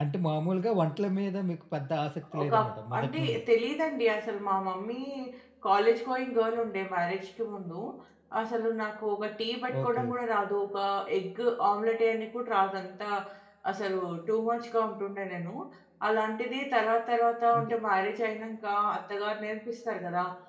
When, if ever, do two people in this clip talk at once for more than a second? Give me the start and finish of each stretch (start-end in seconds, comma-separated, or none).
none